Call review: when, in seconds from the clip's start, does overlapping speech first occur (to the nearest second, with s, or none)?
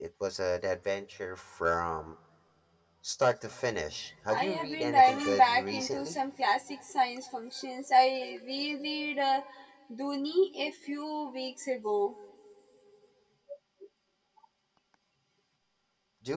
4 s